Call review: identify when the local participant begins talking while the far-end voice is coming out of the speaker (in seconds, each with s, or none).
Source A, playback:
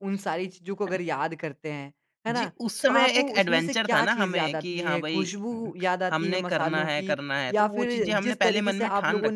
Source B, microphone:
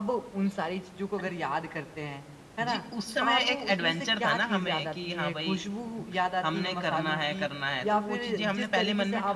none